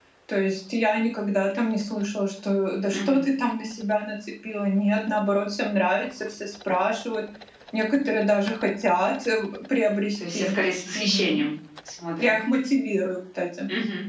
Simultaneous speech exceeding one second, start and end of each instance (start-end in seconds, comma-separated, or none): none